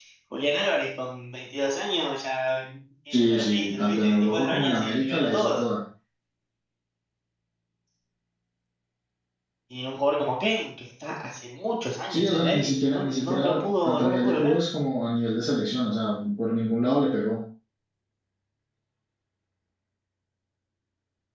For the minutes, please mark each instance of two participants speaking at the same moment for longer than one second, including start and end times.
3.1-5.7, 12.1-14.5

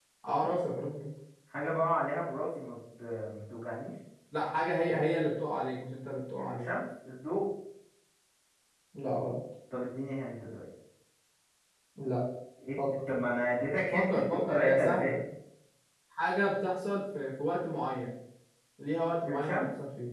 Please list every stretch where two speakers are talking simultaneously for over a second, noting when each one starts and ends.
13.9-15.1

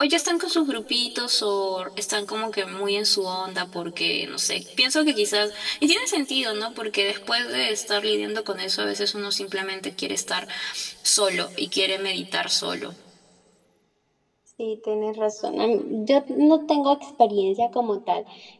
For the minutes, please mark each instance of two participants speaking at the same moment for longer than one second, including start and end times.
none

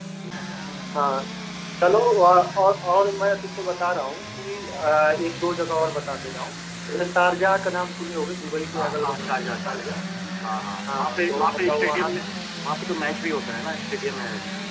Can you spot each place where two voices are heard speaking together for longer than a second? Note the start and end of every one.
8.8-10.0, 10.9-12.2

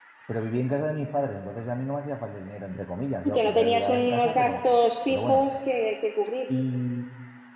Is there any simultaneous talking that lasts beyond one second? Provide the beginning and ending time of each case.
3.2-4.5

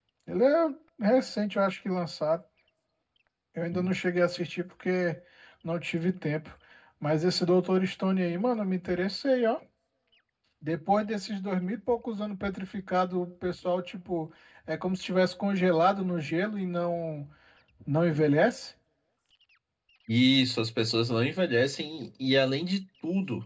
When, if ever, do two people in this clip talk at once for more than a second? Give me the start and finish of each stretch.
none

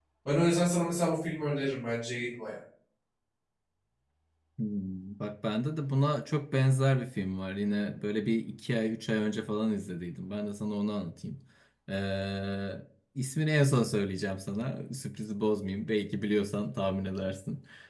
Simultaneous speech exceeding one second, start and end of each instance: none

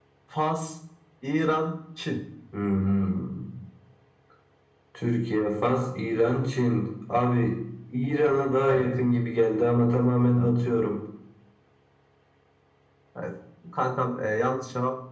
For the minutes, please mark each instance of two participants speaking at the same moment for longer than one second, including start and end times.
none

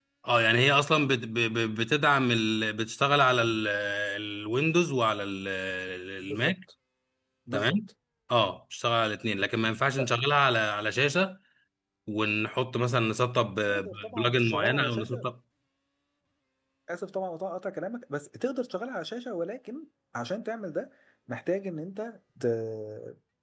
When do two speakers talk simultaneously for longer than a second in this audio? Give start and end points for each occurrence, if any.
13.7-15.2

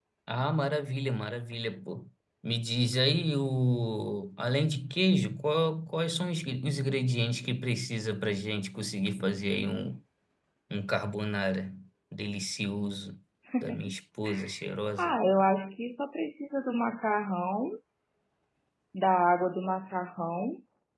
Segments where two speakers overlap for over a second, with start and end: none

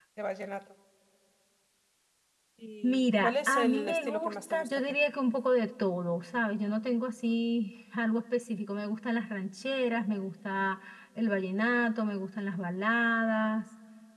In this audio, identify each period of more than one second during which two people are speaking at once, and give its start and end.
2.8-4.9

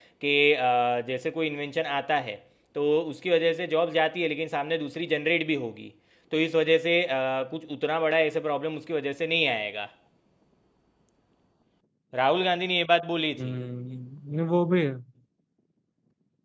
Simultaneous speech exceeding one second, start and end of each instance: none

